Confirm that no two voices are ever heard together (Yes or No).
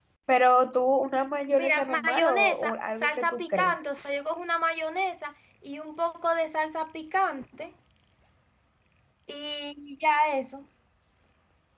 No